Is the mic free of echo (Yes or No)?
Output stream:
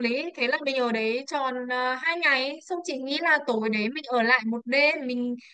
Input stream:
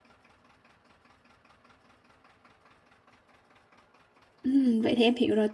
Yes